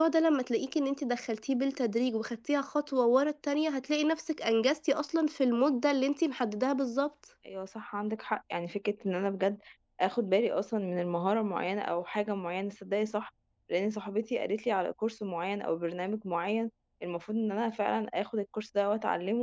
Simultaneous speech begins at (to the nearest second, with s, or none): none